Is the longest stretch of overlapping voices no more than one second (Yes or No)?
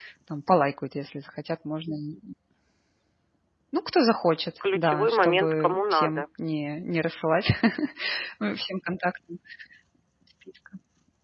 No